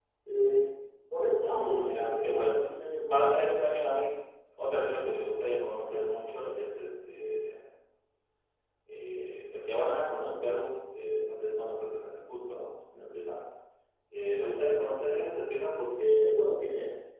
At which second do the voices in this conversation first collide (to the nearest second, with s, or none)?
1 s